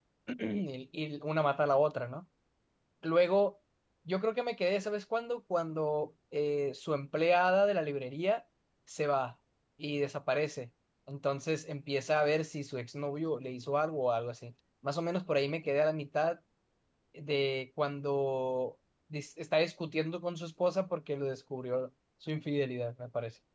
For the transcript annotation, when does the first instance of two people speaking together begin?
none

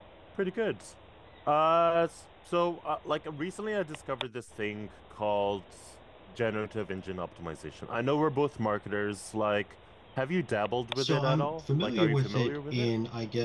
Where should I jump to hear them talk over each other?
11 s

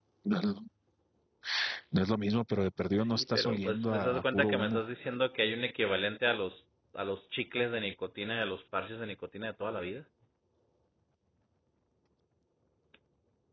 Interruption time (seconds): 3 s

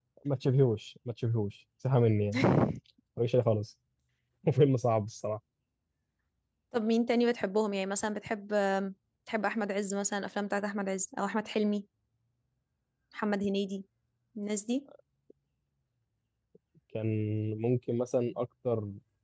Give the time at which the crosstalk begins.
none

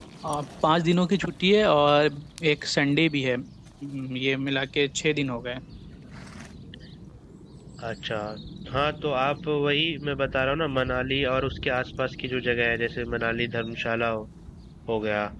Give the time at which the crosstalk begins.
none

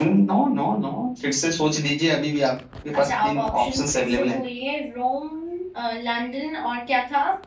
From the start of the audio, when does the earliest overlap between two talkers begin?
3 s

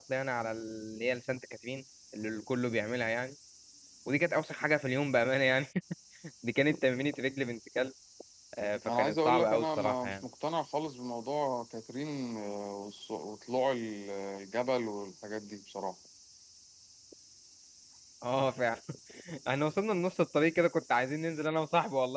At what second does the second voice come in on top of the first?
9 s

